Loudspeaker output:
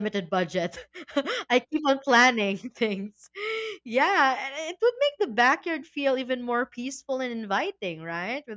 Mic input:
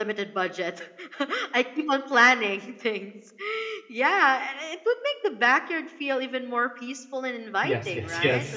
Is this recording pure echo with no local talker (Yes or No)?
No